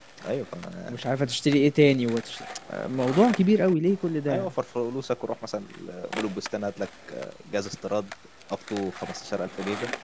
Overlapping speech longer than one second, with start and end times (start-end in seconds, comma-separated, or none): none